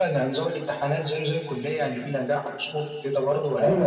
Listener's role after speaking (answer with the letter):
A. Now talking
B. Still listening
A